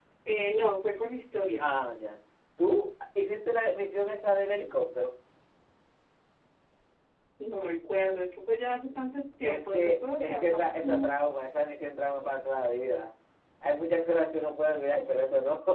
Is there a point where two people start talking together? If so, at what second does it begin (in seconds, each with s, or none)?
9.4 s